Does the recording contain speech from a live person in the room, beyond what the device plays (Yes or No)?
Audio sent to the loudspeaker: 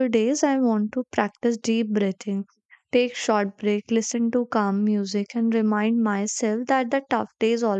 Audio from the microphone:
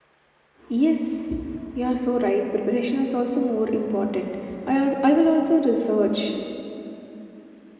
Yes